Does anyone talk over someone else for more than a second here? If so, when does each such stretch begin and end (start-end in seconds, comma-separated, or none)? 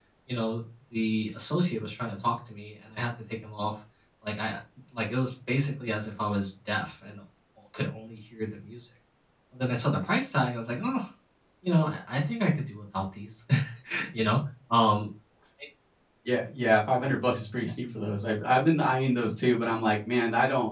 none